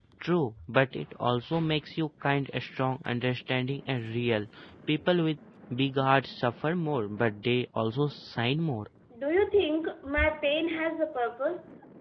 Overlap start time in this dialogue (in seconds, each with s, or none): none